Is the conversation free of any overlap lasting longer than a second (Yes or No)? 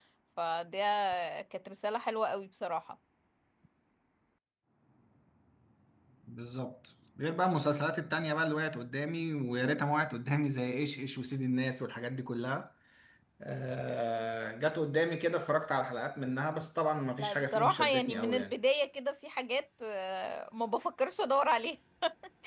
No